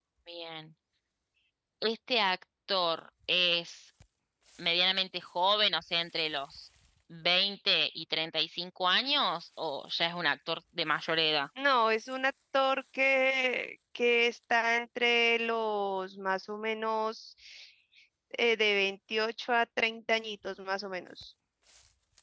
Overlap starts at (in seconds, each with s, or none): none